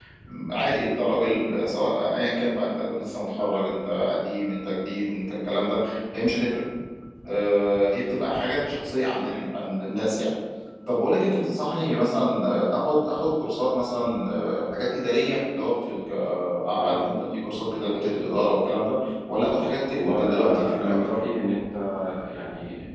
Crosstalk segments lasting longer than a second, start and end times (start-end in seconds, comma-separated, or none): 19.9-21.1